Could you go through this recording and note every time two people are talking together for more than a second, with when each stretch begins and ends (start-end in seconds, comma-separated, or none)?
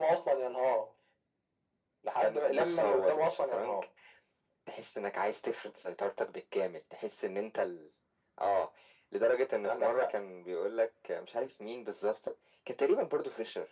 2.2-3.8